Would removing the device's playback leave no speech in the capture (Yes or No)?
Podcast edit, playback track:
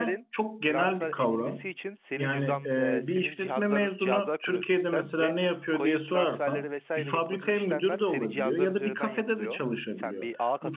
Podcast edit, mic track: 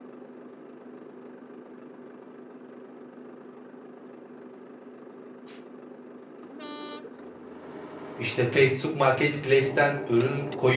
No